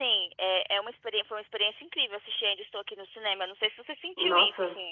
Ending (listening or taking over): taking over